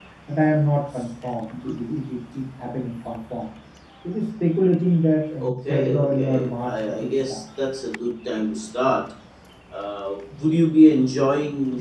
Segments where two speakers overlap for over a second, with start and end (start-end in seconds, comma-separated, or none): 5.4-7.4